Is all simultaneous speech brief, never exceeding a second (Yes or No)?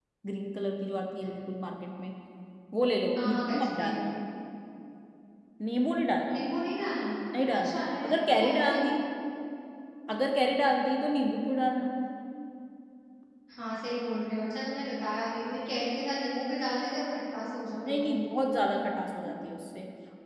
No